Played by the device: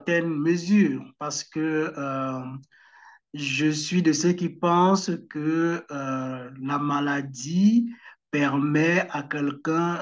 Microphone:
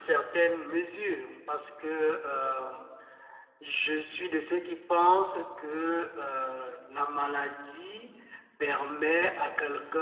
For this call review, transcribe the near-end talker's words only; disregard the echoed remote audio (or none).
none